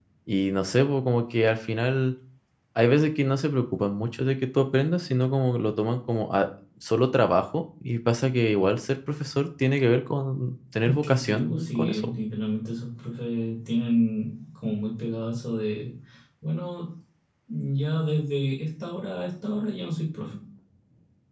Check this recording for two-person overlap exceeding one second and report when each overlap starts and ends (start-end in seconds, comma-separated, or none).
10.8-12.1